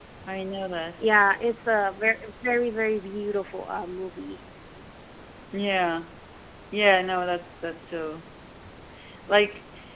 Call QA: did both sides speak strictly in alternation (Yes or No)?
Yes